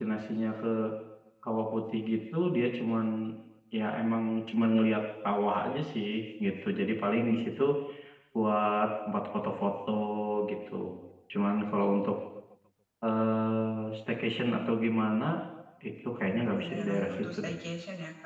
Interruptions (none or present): present